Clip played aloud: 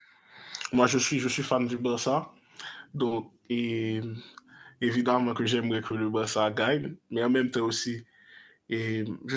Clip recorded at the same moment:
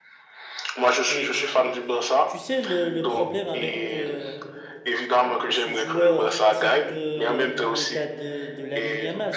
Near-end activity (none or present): present